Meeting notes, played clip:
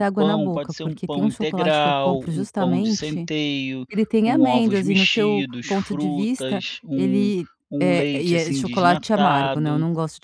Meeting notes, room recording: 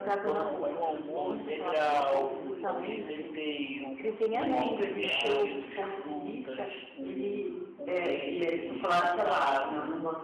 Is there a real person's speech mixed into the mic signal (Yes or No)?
Yes